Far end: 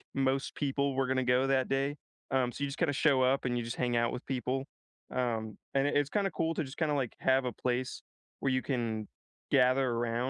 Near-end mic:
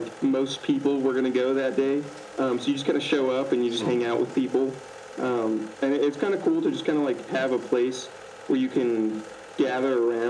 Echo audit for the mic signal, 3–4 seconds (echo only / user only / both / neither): both